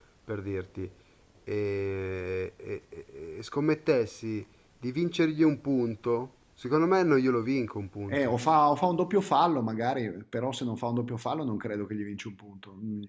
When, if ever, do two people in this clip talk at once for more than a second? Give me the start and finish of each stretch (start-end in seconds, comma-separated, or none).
none